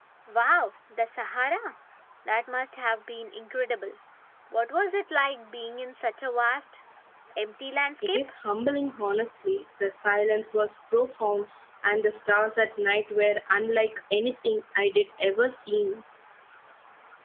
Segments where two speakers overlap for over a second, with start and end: none

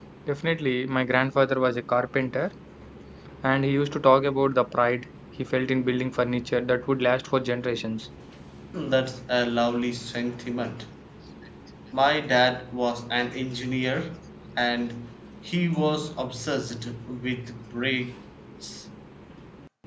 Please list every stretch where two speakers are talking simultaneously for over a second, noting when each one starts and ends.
none

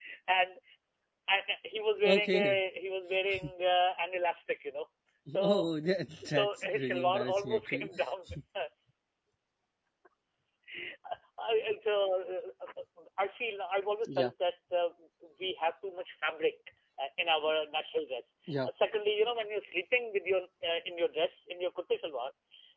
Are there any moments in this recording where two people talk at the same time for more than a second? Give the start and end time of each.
6.2-7.9

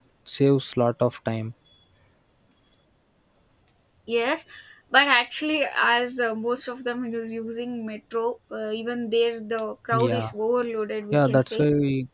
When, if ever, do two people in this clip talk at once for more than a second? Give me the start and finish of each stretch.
none

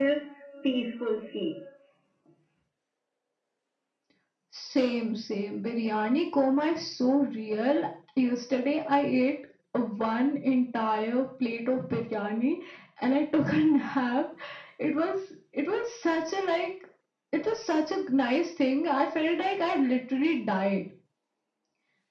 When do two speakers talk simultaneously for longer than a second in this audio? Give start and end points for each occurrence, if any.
none

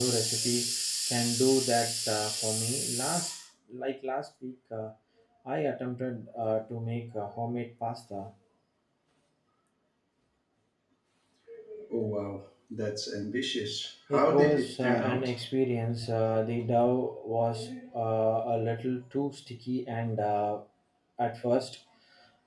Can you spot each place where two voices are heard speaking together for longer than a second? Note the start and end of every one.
14.1-15.3

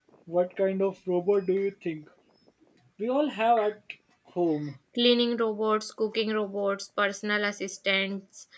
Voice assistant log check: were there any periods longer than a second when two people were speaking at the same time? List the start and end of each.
none

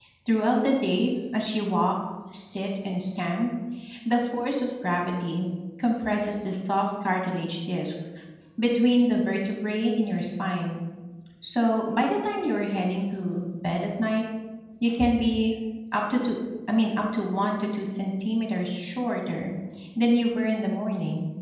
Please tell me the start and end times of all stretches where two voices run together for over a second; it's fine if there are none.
none

